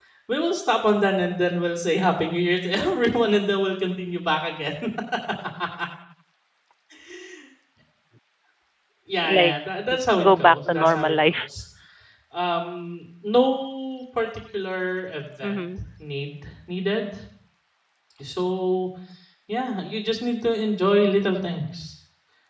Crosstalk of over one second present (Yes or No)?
Yes